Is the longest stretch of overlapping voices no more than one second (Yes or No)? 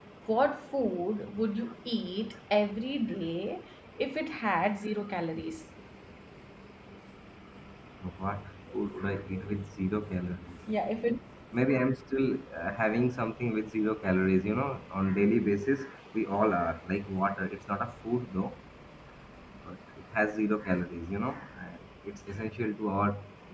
Yes